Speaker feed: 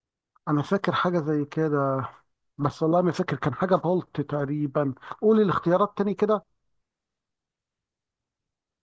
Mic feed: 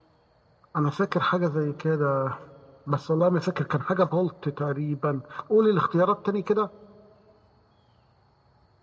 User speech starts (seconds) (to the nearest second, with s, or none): none